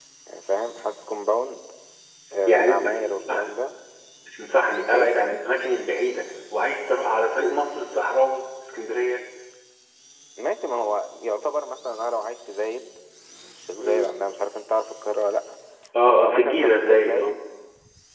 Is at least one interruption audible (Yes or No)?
Yes